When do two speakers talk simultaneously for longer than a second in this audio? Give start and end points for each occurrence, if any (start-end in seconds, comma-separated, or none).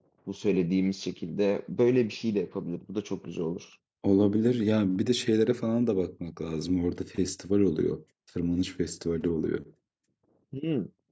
none